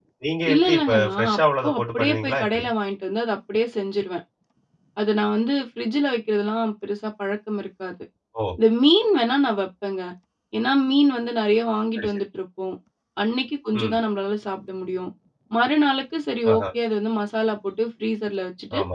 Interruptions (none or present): present